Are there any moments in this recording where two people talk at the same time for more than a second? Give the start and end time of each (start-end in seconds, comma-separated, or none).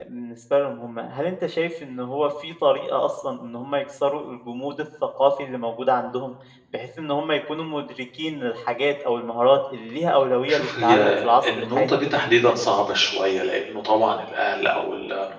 10.5-12.0